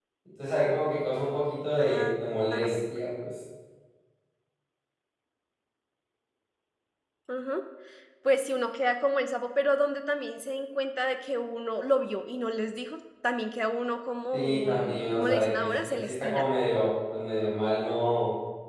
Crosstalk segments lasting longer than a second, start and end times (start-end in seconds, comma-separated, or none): 14.3-16.4